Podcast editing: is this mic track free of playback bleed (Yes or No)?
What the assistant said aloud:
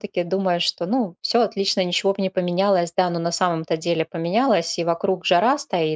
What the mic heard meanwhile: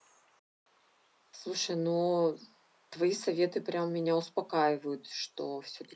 Yes